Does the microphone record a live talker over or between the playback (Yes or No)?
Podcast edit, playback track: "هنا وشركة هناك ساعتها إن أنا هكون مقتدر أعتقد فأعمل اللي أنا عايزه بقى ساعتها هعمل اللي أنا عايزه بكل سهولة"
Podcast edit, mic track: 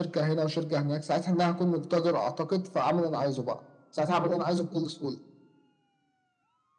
No